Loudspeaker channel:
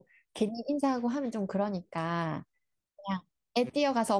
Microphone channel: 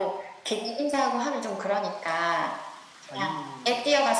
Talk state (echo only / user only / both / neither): both